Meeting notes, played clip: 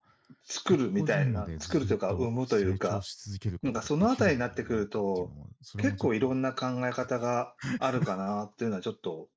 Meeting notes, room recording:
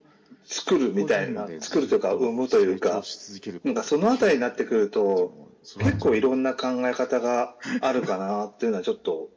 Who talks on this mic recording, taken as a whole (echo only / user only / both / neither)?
both